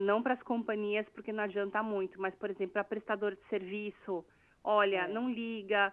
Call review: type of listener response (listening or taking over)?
listening